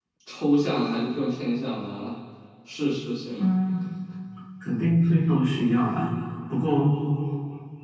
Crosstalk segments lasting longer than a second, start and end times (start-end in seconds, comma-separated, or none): none